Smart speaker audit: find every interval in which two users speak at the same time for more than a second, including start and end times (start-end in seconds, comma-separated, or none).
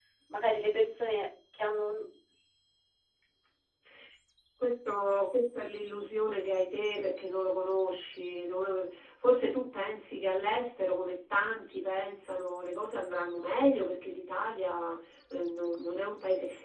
none